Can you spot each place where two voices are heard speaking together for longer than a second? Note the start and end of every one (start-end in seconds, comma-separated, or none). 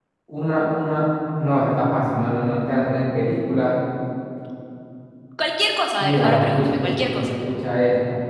6.0-7.3